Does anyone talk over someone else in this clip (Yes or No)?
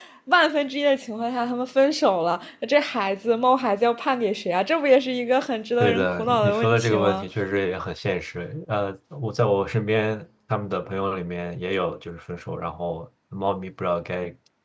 Yes